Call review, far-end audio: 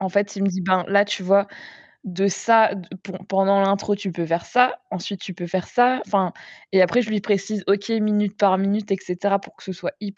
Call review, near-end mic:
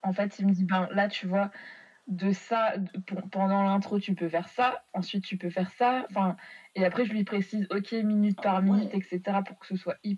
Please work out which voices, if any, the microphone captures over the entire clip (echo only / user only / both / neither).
both